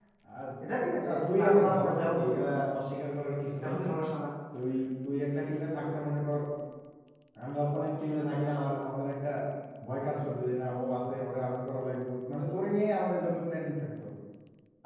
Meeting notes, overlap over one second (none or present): present